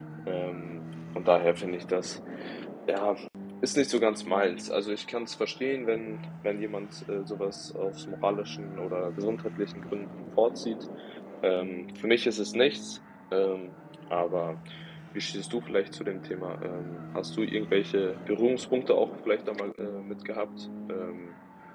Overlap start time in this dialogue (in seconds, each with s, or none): none